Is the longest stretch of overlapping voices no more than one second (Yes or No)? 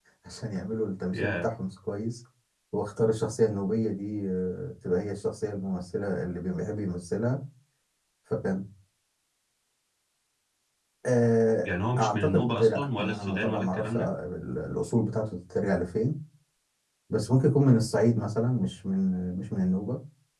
No